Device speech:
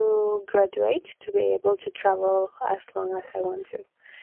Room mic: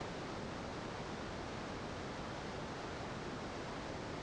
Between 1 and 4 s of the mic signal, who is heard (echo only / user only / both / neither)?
neither